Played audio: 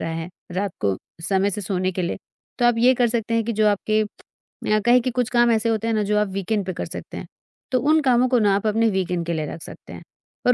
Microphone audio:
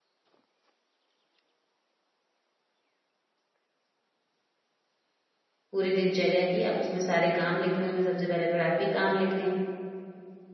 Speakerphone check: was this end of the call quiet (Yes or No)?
No